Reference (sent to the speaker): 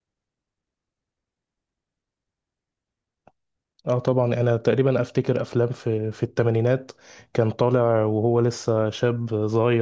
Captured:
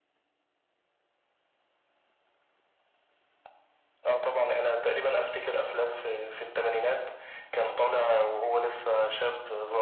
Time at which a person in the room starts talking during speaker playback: none

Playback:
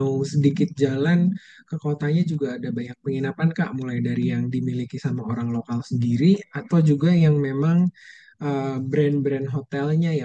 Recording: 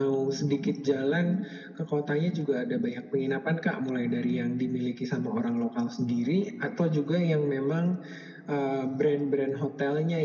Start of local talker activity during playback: none

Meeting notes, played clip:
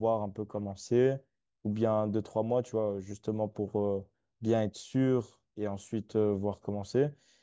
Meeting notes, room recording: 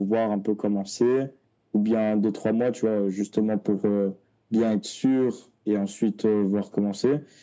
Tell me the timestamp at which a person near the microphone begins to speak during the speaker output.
none

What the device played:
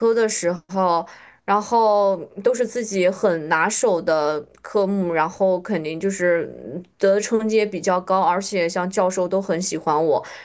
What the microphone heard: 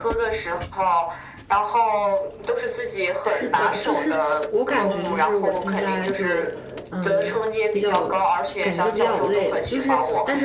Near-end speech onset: 3.2 s

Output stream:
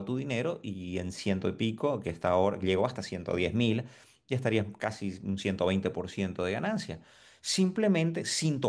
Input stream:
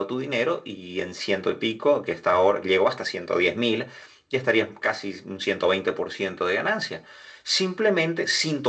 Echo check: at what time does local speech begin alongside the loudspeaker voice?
none

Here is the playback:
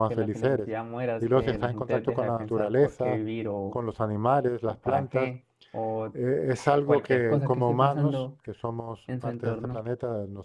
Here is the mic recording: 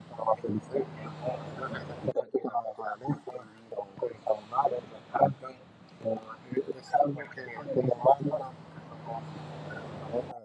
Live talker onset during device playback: none

